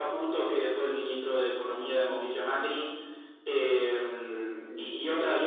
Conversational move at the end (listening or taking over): listening